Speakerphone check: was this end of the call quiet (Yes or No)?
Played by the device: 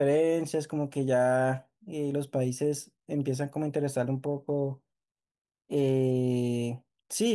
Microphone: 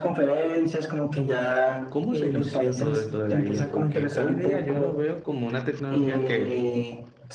No